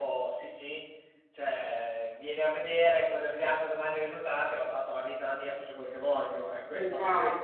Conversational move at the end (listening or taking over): taking over